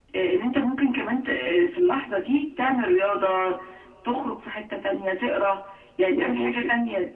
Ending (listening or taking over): listening